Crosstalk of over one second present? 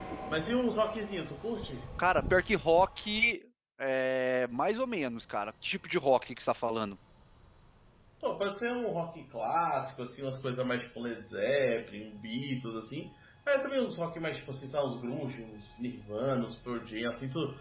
No

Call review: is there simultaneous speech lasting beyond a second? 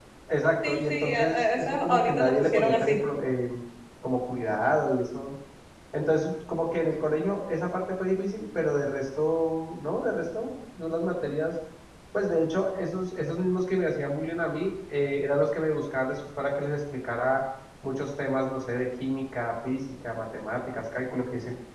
Yes, from 0.7 s

